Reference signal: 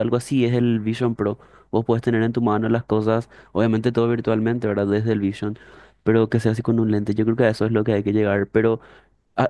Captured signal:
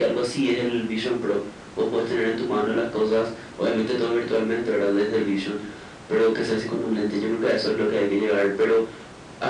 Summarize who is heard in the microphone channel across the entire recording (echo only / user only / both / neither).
echo only